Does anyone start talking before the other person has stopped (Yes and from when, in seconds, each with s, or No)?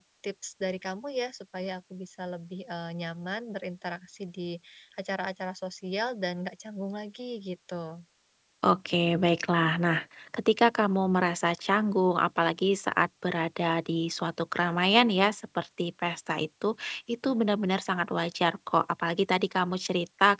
No